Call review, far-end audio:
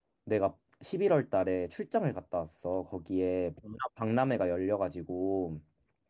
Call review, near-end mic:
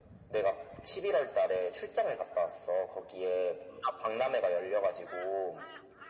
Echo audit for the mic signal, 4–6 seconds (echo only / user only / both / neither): echo only